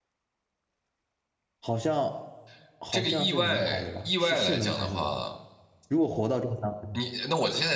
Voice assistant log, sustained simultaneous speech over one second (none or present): present